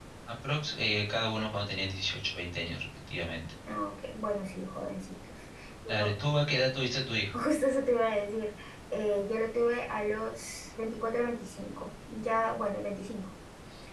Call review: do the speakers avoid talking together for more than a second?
Yes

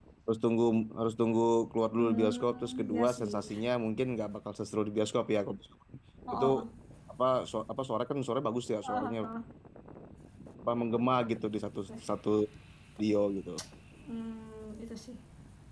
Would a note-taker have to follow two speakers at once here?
Yes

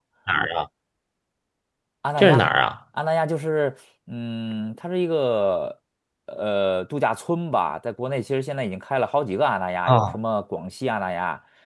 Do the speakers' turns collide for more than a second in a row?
No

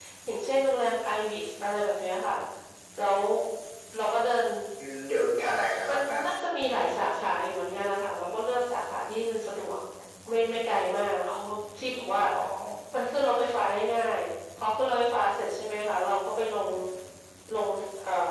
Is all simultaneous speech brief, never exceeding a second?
Yes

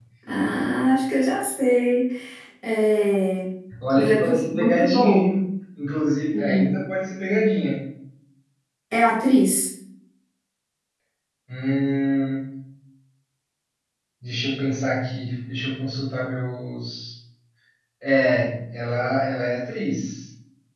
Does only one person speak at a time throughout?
No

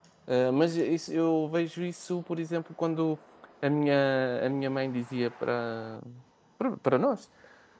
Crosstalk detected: No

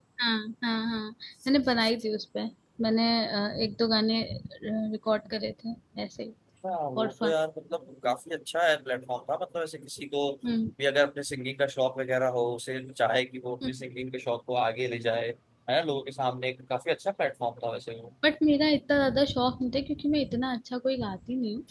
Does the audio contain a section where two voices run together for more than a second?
No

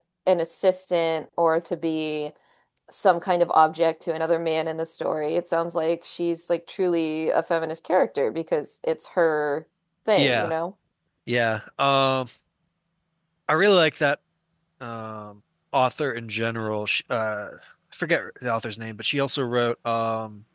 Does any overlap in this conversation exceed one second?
No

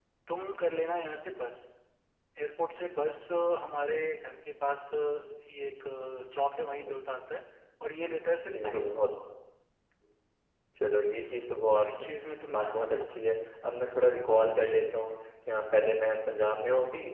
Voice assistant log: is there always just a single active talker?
No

